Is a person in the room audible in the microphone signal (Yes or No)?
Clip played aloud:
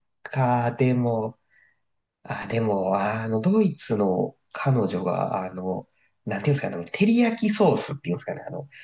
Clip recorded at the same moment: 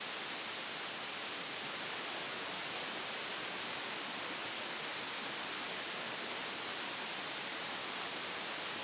No